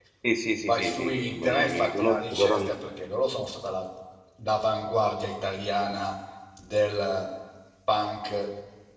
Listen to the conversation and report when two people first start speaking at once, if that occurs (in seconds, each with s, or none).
0.6 s